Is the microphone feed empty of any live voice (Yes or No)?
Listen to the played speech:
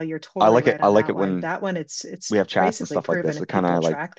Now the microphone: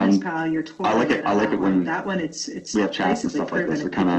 Yes